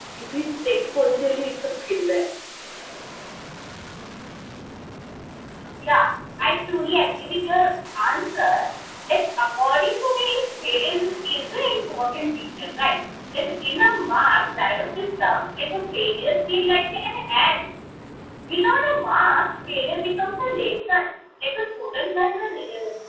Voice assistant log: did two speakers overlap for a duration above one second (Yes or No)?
No